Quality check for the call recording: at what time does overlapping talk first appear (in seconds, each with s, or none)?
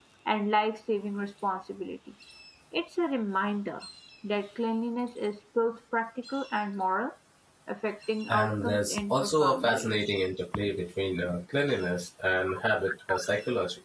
8.3 s